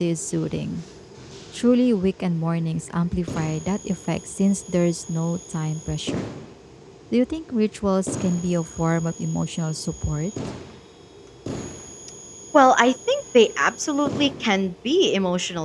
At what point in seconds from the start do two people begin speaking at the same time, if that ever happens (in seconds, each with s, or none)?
none